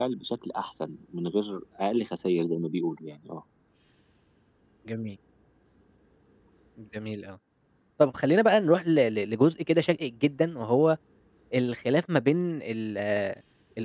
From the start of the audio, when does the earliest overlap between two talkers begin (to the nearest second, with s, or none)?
none